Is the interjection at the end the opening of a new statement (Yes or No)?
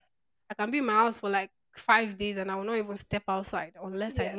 Yes